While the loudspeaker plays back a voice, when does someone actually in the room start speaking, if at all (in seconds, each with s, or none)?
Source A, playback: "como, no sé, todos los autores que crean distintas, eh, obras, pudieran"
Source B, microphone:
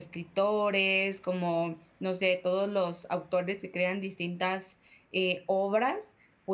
none